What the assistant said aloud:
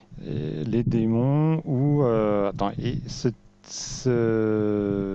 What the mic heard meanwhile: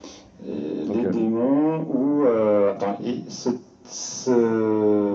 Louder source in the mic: echo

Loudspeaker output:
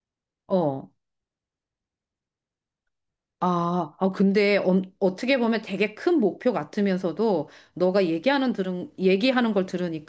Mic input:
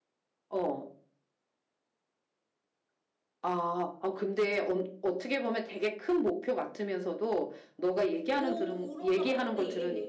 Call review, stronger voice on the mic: echo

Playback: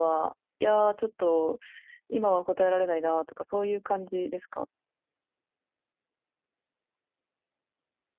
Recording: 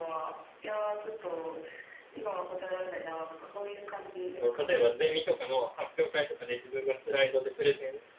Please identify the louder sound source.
user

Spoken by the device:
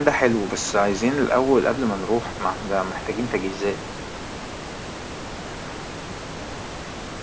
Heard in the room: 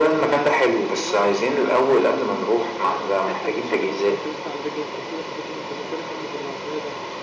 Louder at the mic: echo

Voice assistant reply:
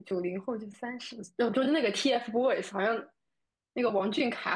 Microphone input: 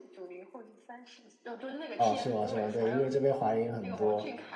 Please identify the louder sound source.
user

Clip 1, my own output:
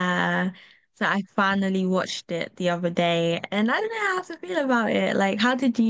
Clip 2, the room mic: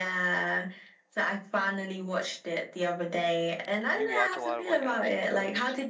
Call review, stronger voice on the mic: echo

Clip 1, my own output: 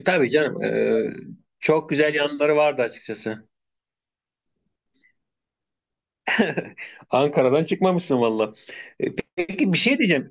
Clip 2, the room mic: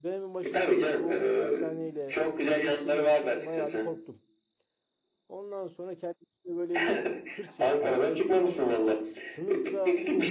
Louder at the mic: echo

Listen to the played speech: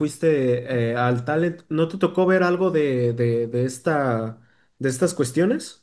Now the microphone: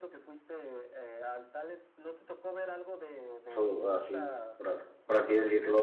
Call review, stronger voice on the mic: user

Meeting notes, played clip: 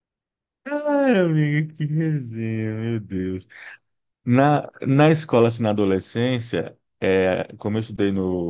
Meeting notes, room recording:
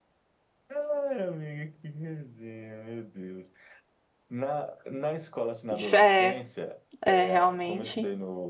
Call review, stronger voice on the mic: user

